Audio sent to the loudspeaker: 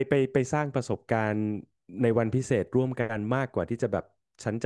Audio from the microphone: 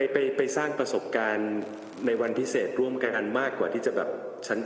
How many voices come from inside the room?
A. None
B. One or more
A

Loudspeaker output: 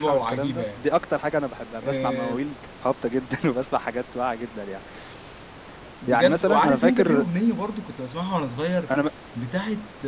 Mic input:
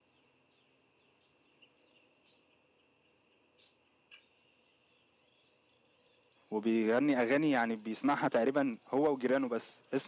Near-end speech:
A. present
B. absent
A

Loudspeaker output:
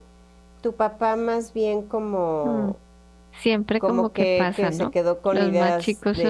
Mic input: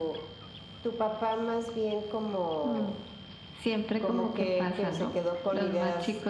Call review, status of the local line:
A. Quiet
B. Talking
A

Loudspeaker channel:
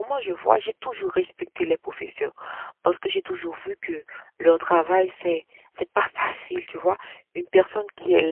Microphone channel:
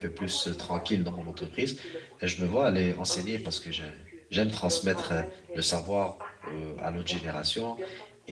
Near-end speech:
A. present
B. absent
A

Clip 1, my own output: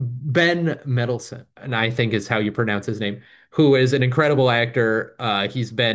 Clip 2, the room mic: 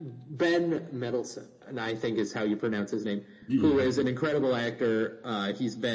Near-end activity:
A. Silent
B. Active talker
B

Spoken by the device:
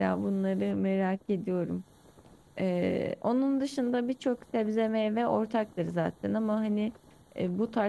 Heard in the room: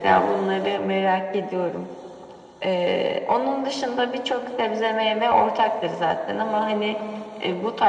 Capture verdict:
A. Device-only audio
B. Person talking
A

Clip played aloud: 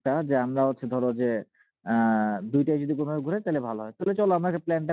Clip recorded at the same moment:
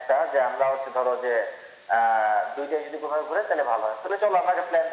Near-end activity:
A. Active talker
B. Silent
B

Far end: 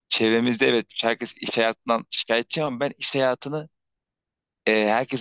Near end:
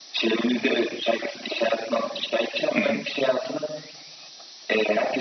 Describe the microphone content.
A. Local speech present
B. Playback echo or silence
A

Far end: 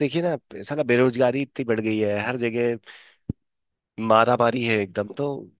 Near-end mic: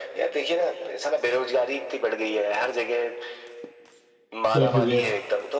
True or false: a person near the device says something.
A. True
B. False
A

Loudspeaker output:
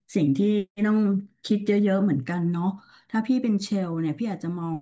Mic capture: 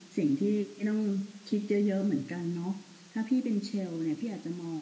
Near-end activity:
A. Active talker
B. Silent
B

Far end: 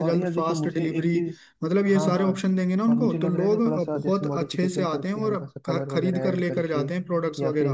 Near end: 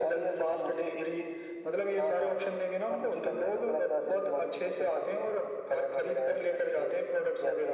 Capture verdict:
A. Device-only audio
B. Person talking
A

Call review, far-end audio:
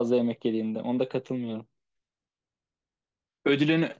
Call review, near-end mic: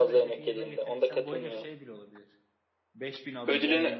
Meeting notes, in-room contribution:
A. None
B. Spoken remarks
B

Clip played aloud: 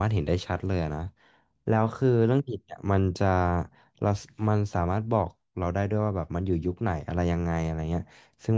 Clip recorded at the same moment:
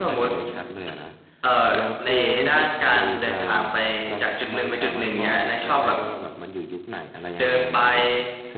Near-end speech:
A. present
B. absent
A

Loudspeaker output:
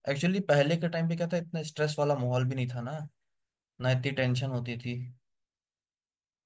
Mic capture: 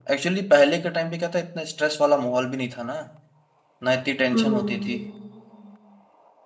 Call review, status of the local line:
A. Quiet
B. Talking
B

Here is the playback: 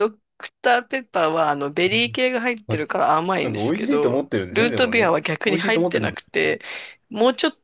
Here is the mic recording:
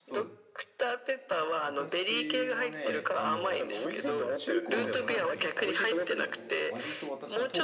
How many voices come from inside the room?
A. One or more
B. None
A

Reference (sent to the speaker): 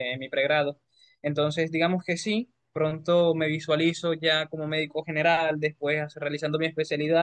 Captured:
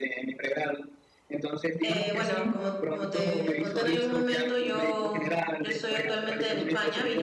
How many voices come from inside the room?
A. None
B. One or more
B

